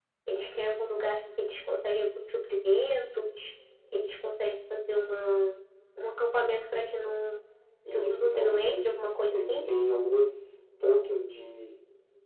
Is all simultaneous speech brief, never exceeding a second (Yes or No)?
No